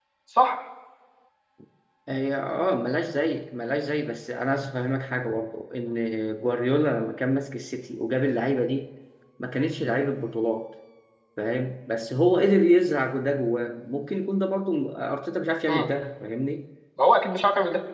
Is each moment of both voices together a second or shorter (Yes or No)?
Yes